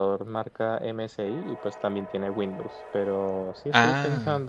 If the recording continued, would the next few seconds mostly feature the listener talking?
No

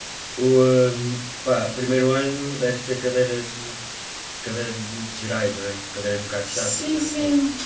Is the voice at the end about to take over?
Yes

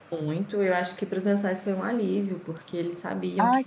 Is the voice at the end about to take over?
No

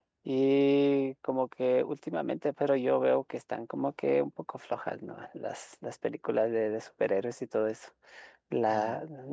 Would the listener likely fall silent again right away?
Yes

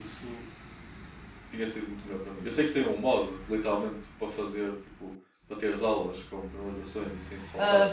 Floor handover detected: Yes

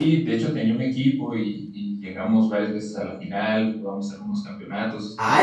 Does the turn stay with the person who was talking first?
No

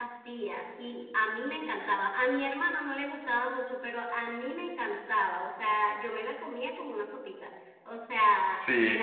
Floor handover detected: No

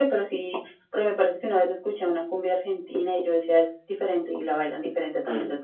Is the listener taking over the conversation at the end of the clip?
Yes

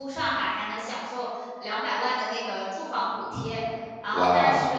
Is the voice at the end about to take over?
Yes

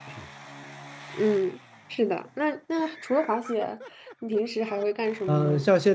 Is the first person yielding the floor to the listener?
Yes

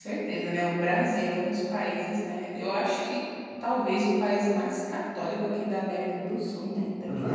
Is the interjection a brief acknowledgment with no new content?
No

